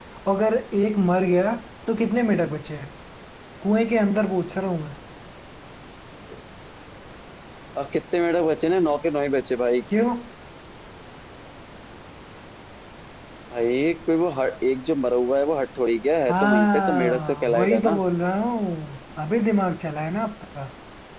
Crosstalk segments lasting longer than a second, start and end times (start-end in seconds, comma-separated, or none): 16.3-18.0